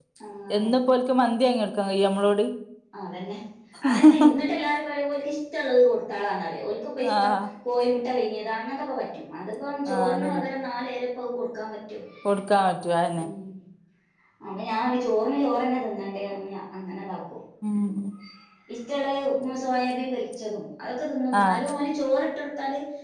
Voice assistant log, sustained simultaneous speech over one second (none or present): none